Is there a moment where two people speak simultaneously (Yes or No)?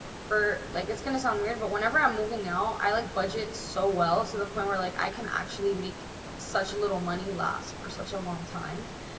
No